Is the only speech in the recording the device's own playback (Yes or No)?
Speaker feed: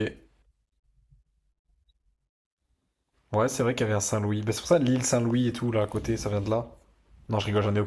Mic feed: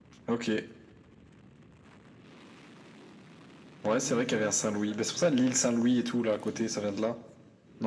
No